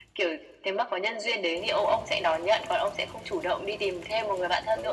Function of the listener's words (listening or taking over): taking over